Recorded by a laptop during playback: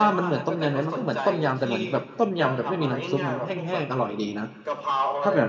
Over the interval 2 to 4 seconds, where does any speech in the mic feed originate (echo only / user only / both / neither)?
both